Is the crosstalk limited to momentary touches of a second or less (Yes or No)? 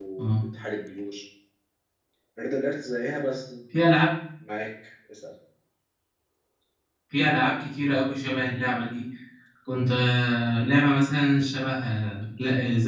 Yes